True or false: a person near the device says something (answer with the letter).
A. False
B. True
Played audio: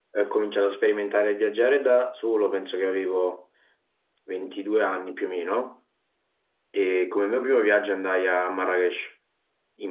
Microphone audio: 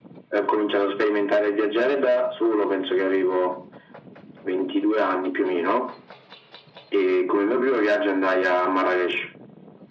A